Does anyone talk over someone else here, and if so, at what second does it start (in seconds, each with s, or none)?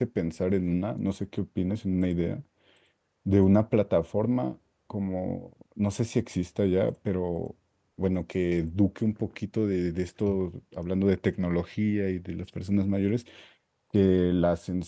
none